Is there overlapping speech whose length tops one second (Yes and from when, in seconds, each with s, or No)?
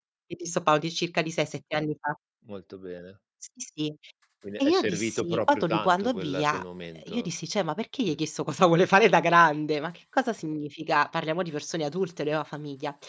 Yes, from 4.6 s